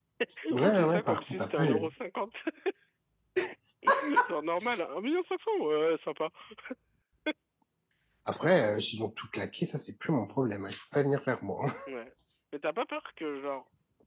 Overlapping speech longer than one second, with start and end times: 0.5-1.9

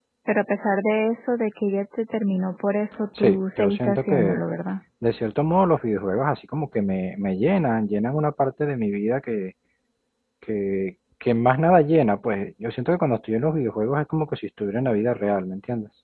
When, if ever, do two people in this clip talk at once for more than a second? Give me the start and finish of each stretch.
3.2-4.4

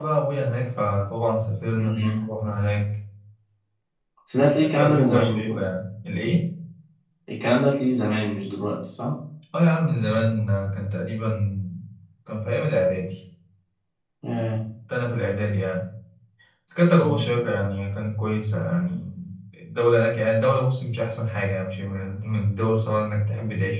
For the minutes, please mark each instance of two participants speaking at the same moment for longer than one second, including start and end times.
4.3-5.6

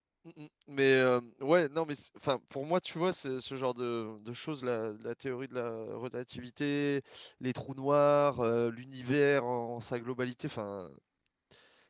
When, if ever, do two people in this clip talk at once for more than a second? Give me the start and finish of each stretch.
none

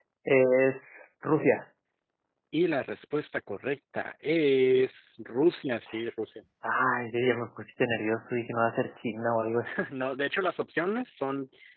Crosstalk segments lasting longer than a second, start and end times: none

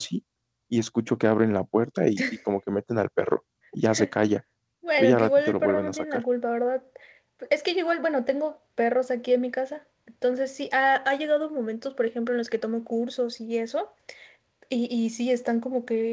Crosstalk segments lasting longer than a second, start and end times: 5.0-6.2

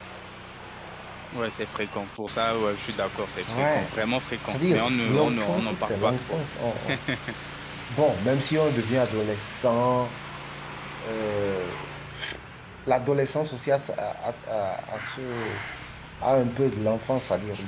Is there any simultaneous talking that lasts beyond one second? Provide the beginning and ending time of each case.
4.5-6.4

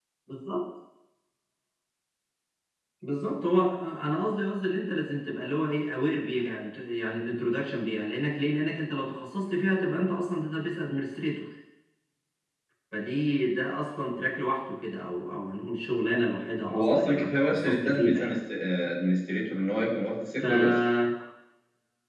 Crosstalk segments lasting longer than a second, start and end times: 16.7-18.2

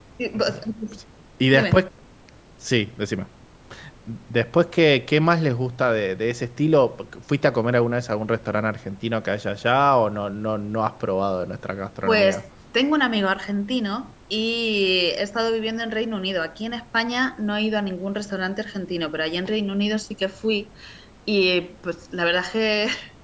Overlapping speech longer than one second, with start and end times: none

